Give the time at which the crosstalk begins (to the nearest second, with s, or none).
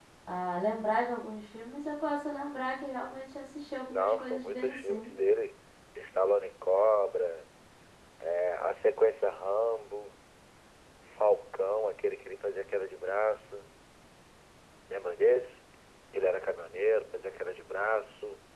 4 s